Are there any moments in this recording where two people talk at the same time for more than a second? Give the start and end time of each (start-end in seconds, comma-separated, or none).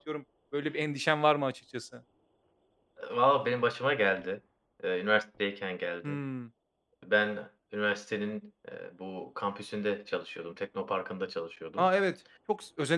none